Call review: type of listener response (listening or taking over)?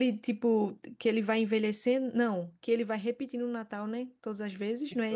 taking over